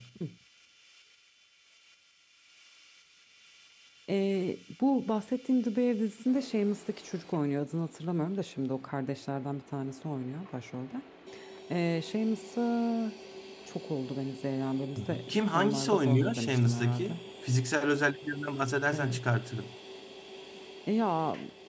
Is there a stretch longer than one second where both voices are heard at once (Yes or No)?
Yes